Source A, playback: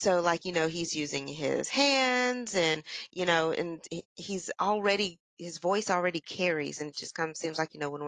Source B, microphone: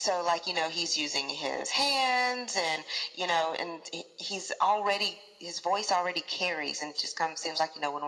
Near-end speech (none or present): none